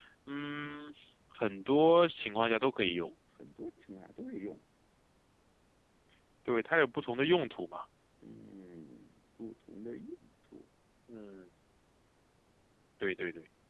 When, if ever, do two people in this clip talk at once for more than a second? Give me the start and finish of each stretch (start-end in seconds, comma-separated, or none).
none